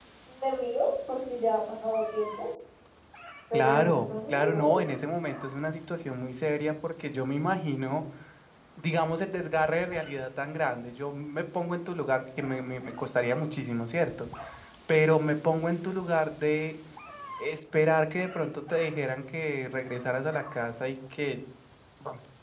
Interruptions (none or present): present